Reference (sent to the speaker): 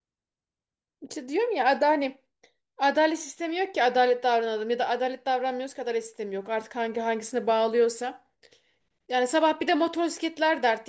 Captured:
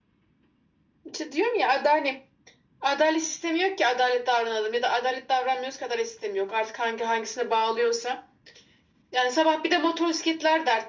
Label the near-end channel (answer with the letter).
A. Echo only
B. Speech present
A